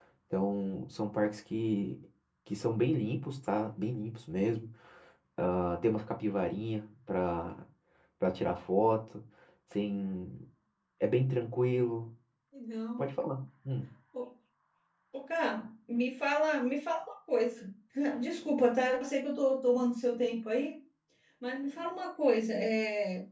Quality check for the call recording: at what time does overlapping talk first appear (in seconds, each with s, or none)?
none